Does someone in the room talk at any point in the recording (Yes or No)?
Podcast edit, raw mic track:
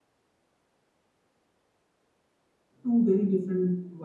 Yes